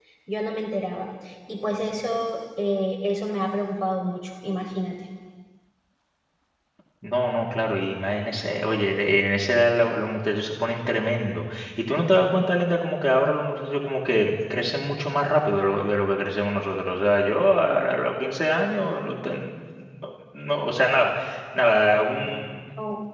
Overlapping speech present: No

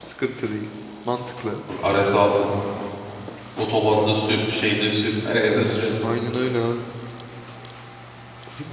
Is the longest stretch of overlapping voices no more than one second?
Yes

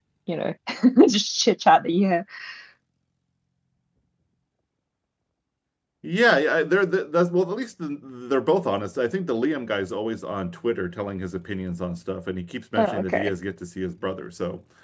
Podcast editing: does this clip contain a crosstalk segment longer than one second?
No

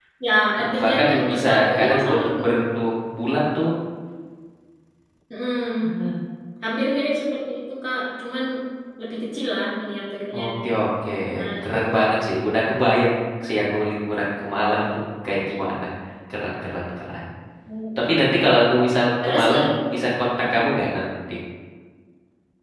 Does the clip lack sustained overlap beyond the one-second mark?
No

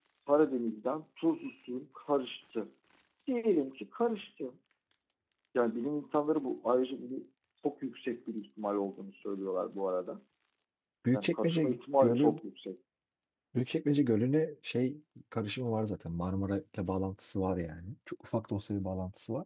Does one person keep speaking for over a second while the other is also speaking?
Yes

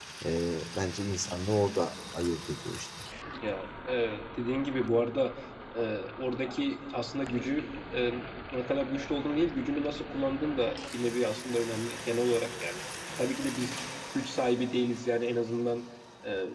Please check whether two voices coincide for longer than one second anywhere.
No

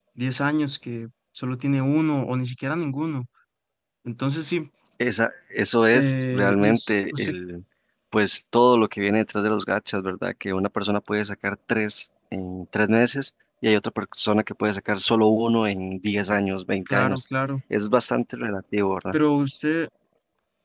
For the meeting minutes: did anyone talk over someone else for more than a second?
Yes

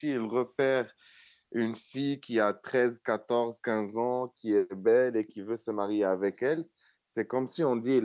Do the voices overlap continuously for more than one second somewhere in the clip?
No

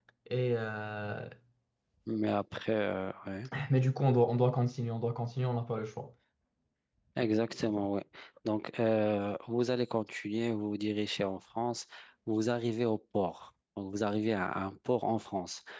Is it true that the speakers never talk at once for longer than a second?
Yes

